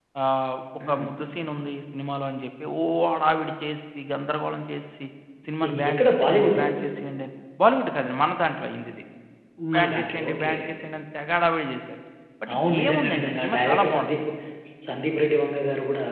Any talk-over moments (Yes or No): Yes